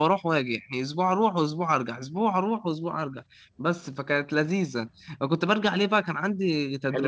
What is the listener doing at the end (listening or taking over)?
taking over